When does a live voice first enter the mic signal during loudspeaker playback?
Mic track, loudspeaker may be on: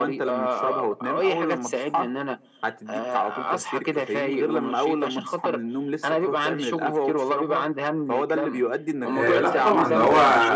9 s

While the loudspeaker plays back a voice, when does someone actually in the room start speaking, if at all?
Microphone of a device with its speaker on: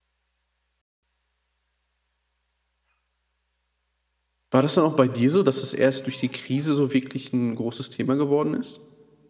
4 s

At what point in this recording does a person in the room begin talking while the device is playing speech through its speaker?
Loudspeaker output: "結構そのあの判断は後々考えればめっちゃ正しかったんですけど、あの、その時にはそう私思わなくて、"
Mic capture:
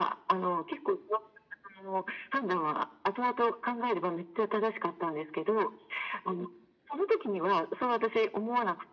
none

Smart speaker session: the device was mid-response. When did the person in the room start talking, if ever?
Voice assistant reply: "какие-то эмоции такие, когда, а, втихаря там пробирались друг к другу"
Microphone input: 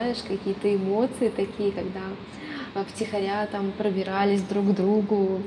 none

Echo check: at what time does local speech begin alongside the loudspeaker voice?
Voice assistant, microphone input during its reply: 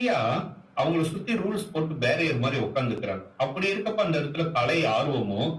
none

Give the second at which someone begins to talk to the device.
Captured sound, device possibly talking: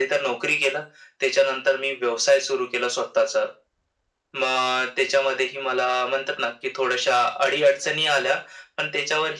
none

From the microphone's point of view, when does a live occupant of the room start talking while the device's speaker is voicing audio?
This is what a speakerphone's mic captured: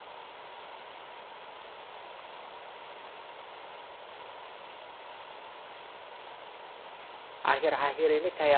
7 s

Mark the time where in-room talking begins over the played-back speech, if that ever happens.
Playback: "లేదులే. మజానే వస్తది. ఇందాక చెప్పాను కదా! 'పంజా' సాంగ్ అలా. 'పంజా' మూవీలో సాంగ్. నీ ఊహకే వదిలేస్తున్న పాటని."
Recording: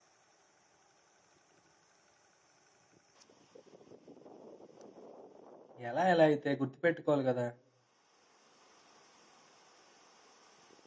6 s

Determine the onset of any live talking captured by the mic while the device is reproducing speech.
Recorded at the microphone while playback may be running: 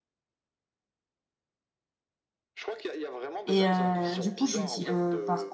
3 s

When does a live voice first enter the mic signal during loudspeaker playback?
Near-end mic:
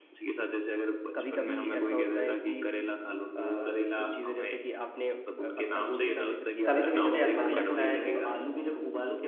7 s

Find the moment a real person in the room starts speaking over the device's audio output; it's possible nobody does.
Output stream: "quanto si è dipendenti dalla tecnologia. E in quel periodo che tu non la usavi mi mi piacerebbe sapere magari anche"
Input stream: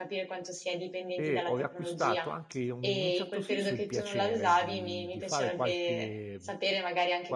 1 s

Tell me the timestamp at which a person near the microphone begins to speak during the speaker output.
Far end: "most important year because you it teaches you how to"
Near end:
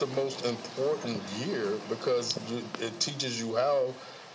none

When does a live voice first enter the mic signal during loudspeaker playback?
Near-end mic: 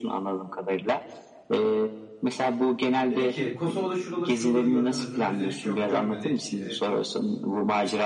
3 s

